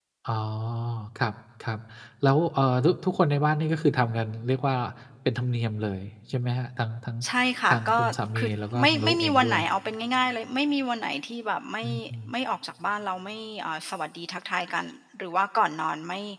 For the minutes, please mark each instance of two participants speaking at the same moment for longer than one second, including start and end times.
8.4-9.6

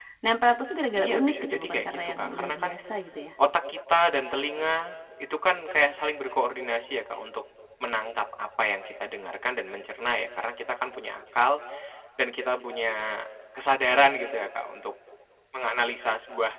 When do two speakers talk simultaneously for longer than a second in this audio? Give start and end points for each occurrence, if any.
0.9-2.8

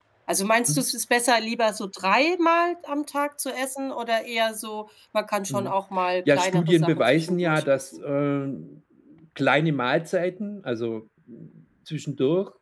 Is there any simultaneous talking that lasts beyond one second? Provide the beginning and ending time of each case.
6.3-8.0

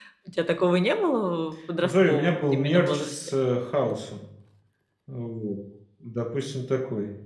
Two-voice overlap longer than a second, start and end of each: 1.8-3.4

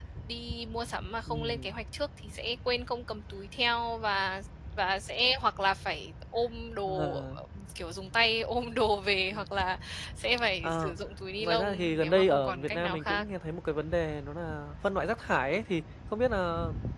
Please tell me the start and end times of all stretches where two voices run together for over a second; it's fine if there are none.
11.4-13.2

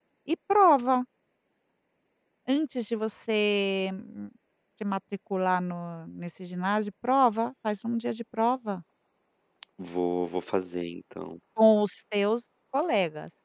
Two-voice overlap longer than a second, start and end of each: none

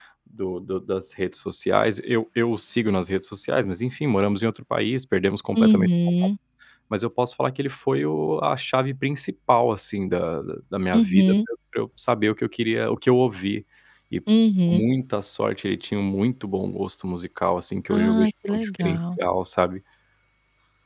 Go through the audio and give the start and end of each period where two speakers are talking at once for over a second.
17.9-19.2

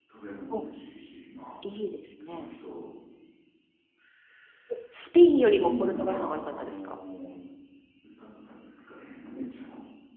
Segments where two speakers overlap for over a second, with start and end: 5.4-7.0

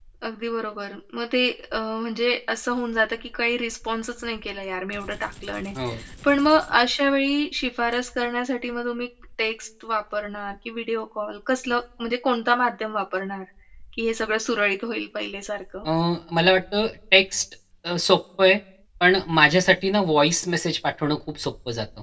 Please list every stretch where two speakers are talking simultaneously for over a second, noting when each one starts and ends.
none

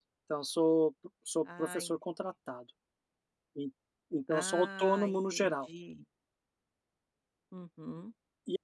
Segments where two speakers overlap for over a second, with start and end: 4.3-5.5

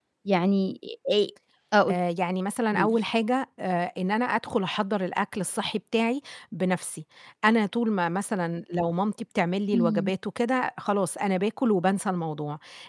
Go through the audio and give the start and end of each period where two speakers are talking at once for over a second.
none

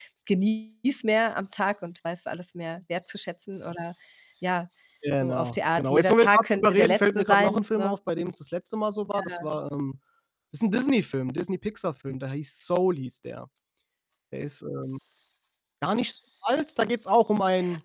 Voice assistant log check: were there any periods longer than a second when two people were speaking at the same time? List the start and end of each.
5.1-8.0

